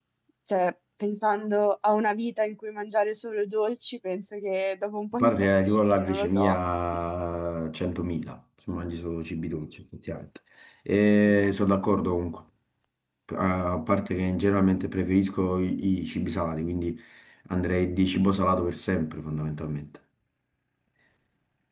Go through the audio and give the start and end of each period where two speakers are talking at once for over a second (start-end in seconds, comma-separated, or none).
5.2-6.6